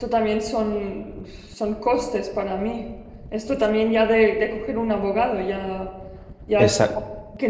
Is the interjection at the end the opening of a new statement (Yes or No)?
No